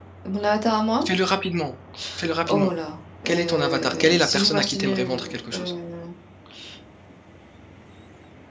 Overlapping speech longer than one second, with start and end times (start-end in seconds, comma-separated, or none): 3.3-5.7